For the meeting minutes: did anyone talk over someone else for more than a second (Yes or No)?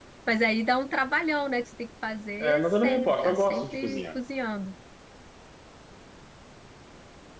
Yes